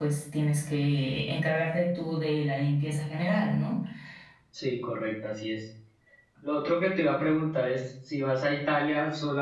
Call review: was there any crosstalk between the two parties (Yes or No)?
No